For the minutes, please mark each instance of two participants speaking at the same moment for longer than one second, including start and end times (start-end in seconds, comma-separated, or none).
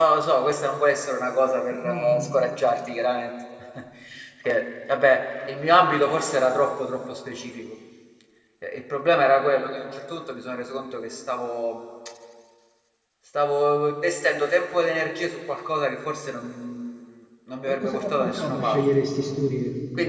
17.7-18.9